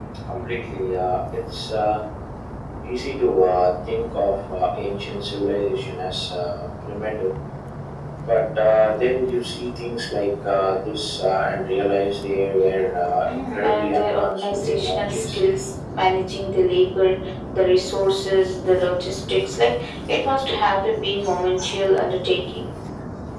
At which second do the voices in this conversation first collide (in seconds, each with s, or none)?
13.2 s